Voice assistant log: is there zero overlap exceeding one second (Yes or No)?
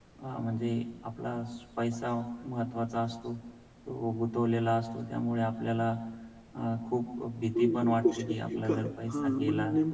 No